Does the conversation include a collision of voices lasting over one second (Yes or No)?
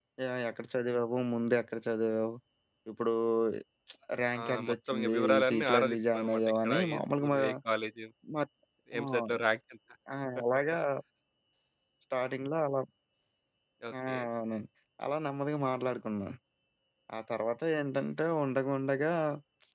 Yes